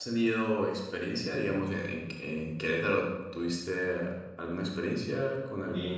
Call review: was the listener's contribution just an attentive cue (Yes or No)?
No